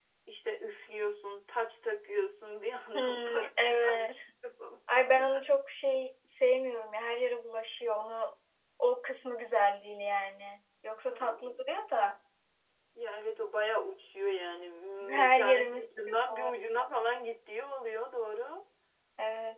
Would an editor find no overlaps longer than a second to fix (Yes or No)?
No